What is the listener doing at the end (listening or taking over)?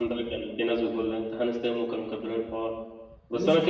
listening